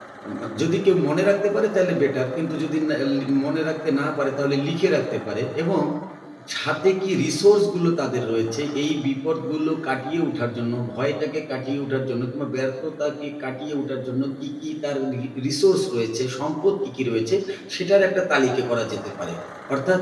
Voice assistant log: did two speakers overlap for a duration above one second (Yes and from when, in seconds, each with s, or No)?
No